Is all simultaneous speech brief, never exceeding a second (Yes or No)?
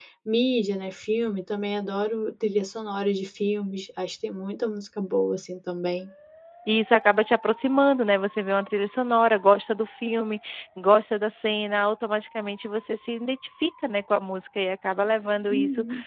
Yes